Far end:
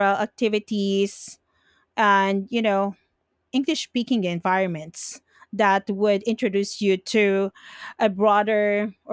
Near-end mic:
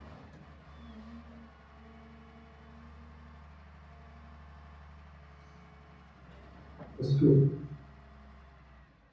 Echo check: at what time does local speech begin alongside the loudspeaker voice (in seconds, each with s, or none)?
7.0 s